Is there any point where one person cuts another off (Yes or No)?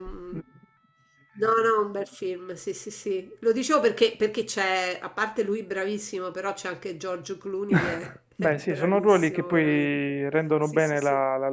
Yes